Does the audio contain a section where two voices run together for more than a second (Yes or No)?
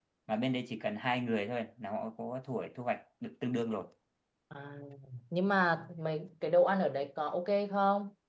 No